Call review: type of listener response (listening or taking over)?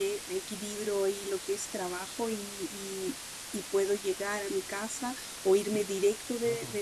listening